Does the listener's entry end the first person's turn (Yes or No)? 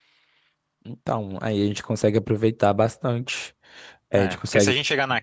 Yes